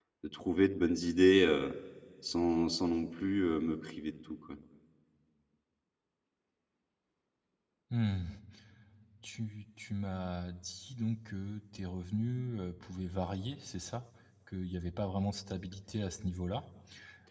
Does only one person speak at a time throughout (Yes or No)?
Yes